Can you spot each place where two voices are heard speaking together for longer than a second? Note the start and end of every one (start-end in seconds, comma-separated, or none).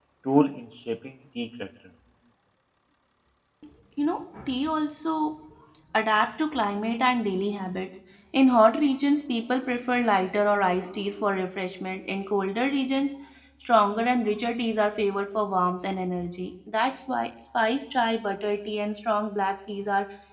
none